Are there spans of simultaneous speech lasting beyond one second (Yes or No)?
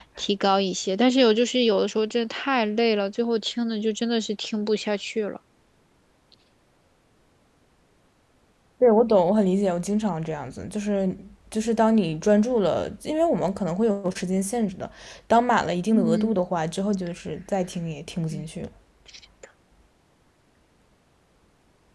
No